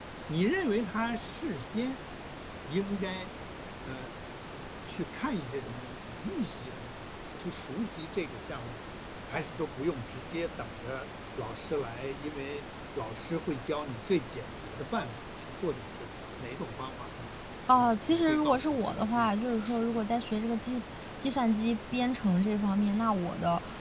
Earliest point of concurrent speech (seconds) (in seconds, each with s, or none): 17.7 s